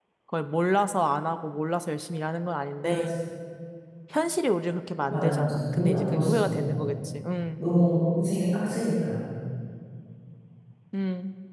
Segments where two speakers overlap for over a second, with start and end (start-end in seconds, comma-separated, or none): 5.1-6.8